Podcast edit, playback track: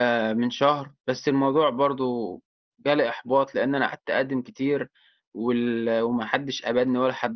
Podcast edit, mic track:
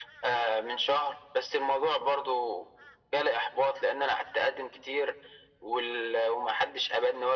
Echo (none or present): present